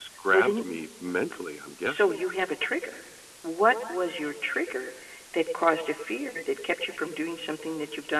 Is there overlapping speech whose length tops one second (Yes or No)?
No